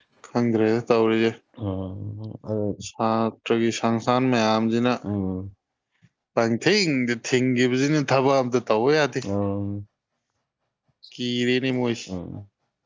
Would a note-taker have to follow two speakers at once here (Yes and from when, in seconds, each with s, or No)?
No